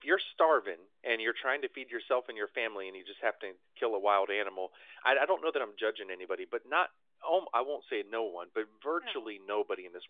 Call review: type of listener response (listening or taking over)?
listening